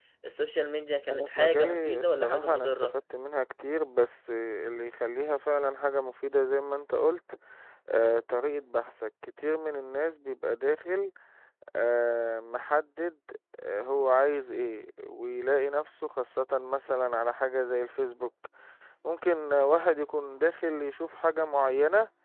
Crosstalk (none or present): present